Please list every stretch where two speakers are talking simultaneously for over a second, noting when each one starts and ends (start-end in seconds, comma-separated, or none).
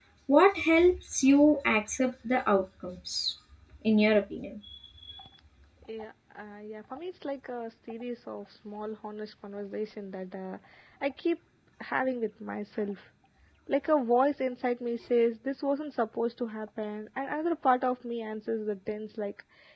none